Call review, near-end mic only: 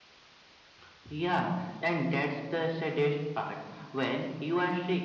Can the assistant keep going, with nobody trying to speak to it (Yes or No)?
Yes